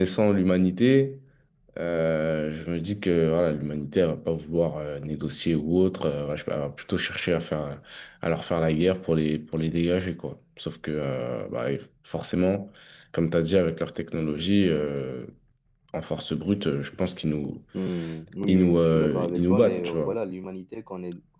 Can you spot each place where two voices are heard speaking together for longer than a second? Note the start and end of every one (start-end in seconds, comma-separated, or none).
18.5-20.1